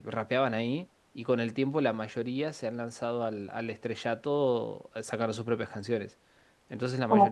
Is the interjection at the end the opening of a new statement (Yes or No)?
No